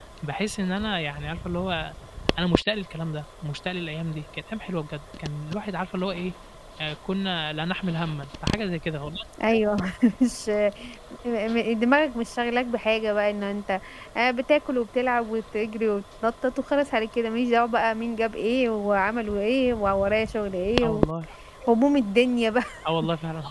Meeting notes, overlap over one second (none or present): none